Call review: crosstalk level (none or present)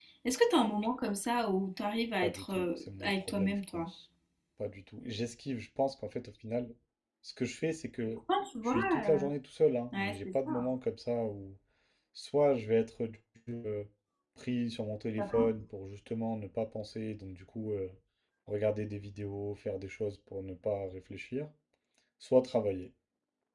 present